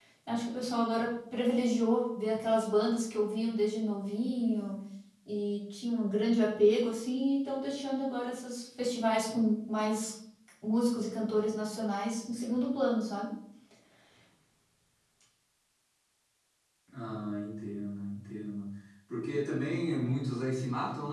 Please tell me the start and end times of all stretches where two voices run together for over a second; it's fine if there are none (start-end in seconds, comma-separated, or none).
none